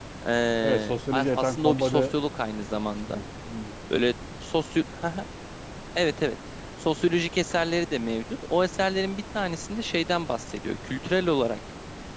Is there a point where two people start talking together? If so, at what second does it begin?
0.6 s

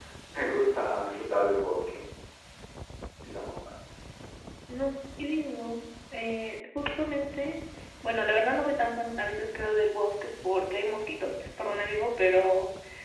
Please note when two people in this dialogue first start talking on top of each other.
none

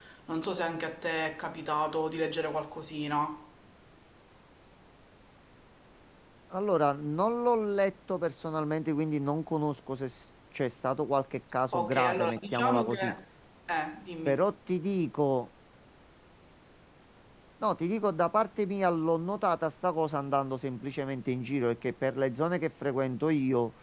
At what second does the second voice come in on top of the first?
11.7 s

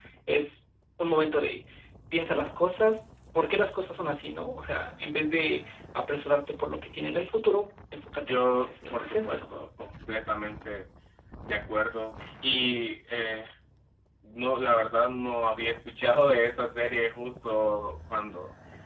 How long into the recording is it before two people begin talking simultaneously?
8.2 s

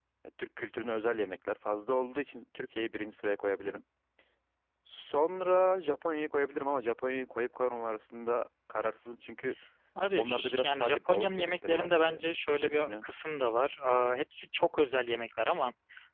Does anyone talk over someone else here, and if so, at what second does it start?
10.2 s

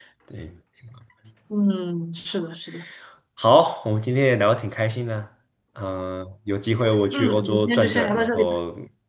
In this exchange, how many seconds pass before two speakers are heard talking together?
7.1 s

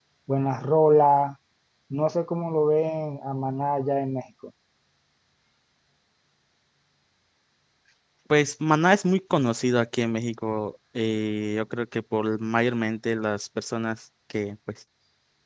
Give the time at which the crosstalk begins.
none

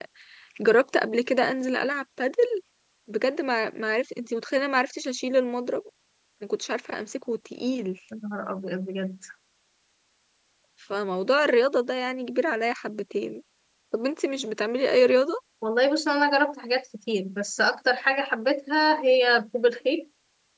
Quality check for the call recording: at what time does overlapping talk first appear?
none

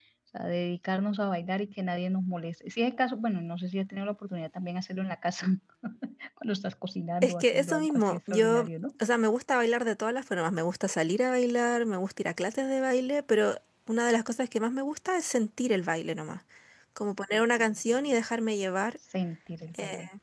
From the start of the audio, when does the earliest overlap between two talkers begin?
7.2 s

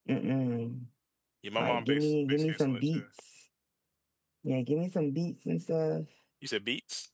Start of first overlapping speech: 1.6 s

